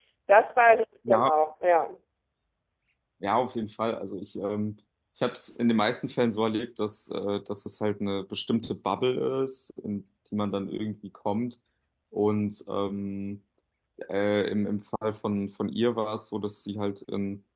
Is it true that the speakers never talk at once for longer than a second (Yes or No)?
Yes